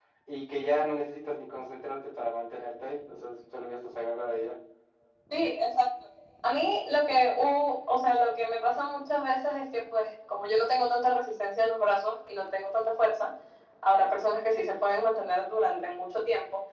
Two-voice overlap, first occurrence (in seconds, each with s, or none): none